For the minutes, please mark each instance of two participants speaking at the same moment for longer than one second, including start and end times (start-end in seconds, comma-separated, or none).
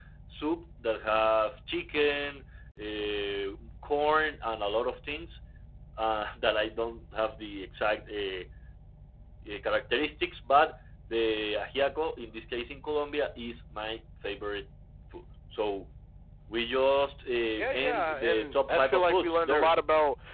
17.7-19.7